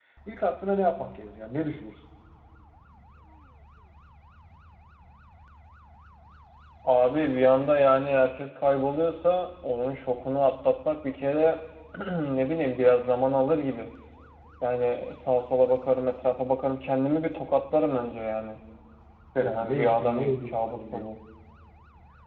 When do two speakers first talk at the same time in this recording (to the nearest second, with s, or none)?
19 s